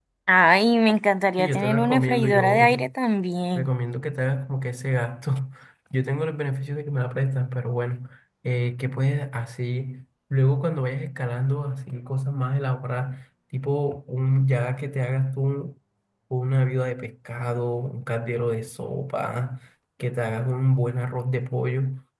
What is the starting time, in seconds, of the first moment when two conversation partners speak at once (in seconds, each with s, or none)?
1.4 s